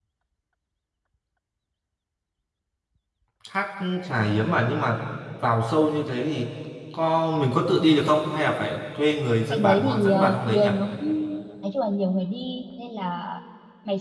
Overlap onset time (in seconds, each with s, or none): 9.5 s